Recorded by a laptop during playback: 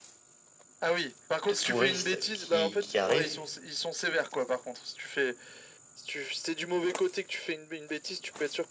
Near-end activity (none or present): present